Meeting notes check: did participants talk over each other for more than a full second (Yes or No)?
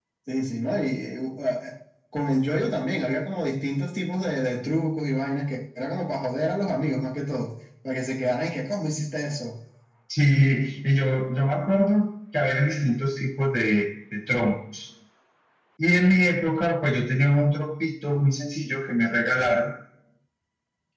No